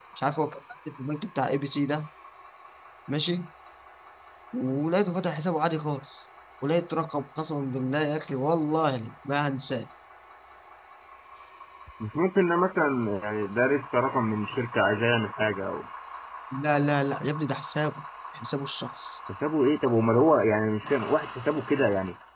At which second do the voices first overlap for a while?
none

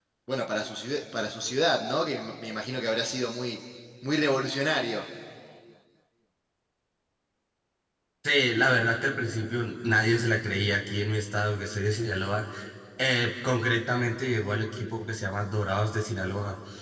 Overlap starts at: none

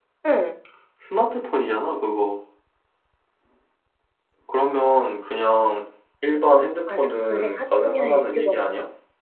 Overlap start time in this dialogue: 6.9 s

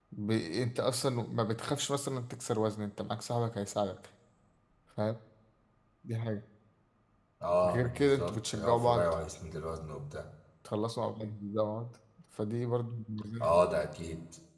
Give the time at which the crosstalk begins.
7.7 s

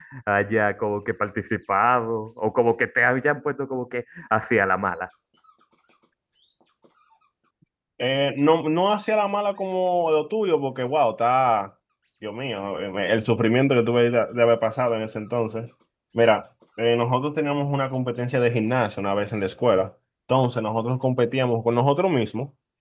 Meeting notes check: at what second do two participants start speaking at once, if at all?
none

